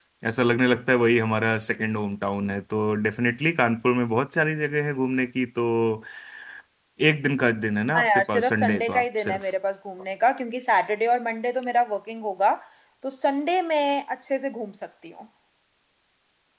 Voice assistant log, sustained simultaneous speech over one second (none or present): present